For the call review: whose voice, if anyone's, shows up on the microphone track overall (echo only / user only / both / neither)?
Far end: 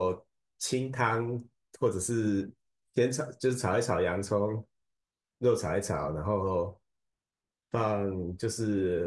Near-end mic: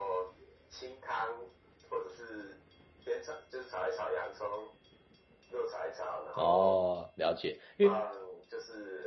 both